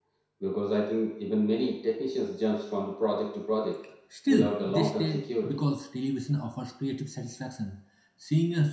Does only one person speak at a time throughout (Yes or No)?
No